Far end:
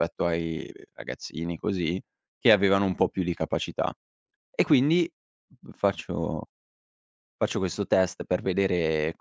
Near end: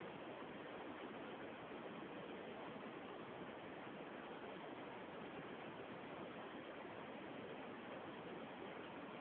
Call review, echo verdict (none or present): none